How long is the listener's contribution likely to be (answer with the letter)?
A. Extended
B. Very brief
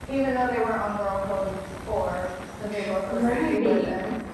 A